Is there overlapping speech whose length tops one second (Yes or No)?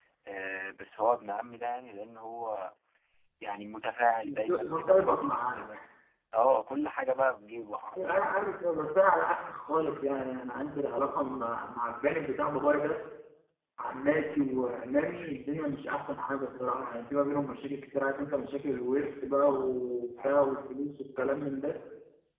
Yes